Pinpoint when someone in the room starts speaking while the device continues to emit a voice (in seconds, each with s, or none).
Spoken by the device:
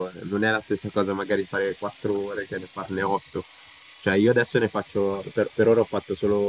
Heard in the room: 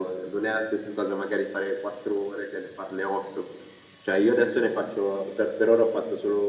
none